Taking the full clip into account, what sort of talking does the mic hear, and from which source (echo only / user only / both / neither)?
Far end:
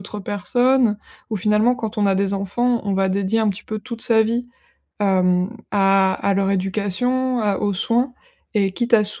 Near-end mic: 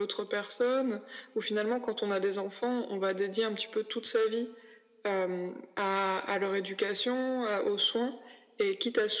echo only